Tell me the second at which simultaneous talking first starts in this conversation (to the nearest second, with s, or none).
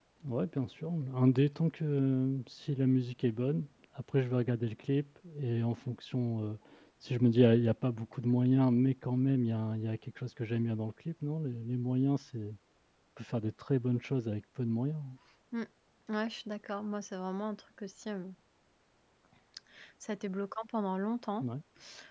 none